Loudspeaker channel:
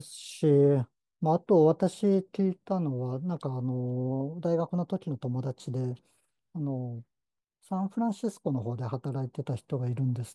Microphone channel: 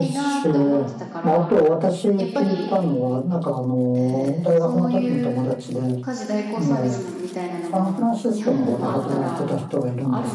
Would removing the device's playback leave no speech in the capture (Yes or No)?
No